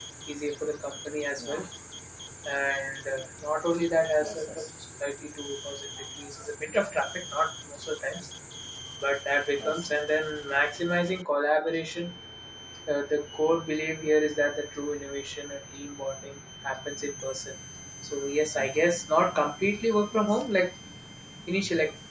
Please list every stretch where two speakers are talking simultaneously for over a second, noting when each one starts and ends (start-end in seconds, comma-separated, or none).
none